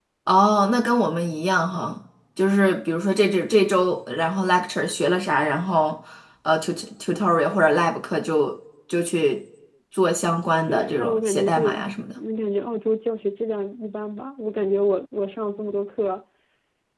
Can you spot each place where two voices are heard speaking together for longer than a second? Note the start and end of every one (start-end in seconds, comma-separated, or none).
10.7-11.9